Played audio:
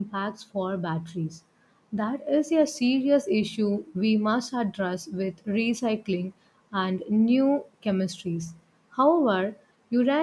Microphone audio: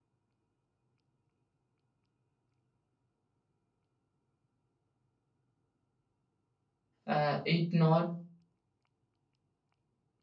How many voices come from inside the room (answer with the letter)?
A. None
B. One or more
B